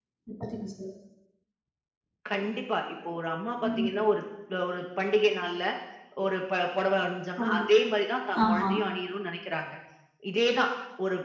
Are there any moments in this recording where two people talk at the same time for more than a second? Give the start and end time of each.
none

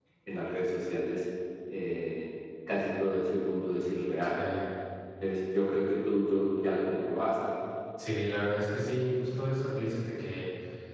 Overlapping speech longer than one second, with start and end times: none

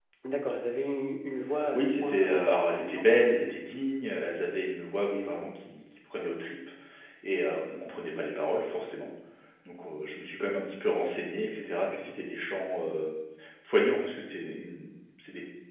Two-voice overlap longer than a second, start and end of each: 1.7-3.1

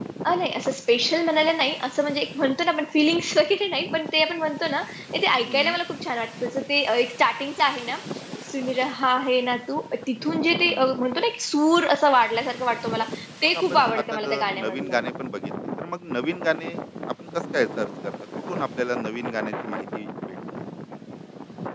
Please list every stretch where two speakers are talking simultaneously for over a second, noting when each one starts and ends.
13.5-15.0

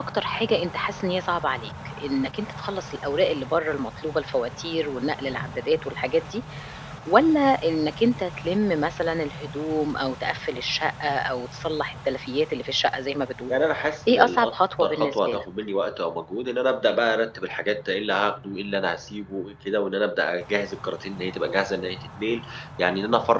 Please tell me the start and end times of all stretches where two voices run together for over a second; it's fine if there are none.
14.1-15.4

